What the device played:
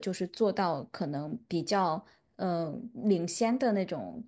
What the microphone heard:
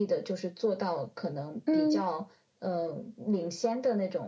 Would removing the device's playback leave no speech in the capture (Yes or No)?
No